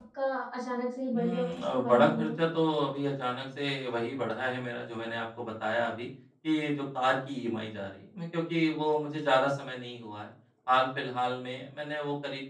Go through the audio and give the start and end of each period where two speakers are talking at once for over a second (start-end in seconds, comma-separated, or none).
1.1-2.4